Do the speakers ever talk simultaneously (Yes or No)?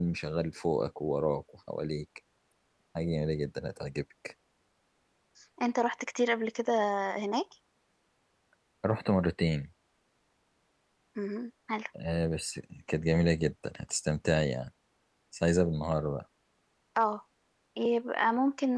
No